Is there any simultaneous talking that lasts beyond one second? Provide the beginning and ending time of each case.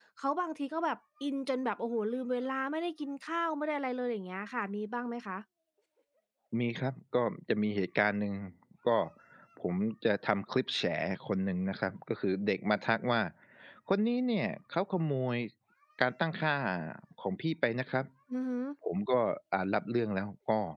none

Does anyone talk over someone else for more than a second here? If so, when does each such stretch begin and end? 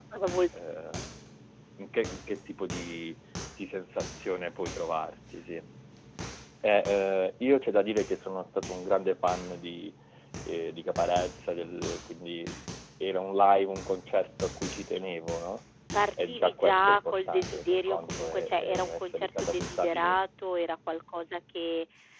16.2-20.1

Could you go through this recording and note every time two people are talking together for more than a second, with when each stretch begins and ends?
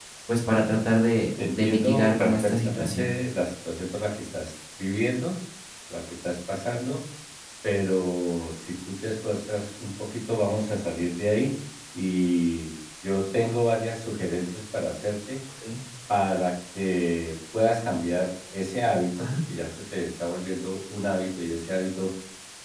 1.4-3.1

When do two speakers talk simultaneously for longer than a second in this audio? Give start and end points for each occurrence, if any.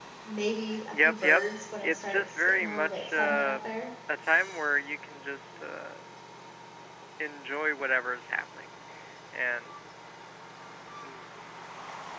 1.8-3.6

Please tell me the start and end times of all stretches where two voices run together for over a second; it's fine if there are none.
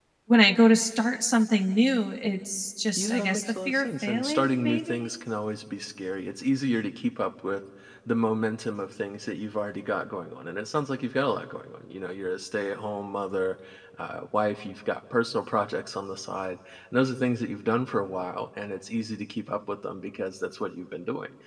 3.0-5.1

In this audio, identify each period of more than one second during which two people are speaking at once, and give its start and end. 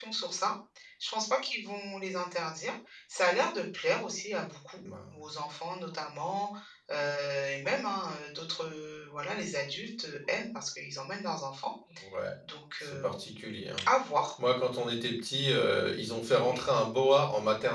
none

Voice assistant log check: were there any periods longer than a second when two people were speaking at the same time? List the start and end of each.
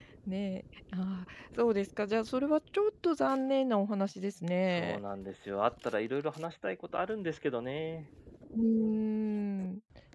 none

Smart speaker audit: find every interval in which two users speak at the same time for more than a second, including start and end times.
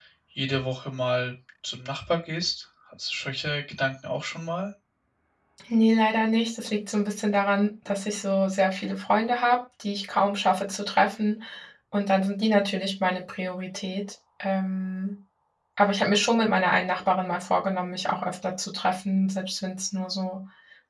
none

